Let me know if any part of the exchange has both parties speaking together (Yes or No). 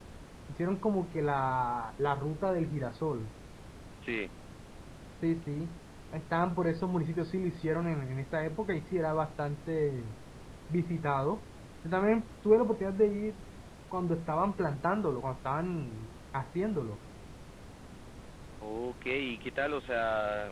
No